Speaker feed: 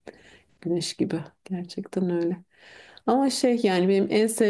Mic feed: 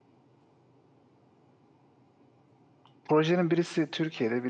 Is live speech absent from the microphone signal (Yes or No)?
No